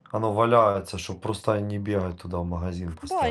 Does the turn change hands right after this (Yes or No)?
Yes